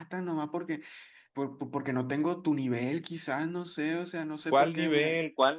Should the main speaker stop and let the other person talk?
Yes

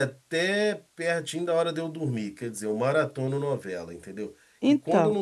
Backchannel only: Yes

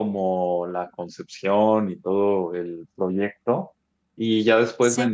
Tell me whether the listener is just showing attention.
Yes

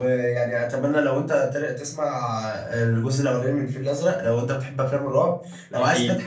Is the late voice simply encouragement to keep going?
Yes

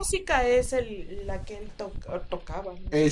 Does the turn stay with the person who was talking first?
No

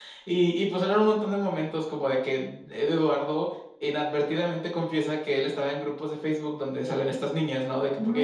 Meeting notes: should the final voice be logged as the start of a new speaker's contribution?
No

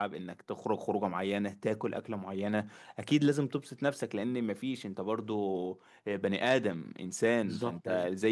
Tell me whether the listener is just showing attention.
Yes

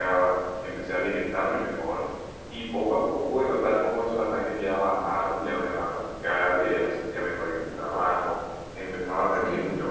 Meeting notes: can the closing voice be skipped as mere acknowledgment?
Yes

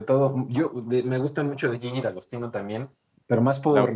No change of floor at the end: No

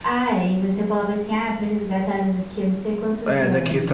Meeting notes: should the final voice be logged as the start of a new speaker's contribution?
Yes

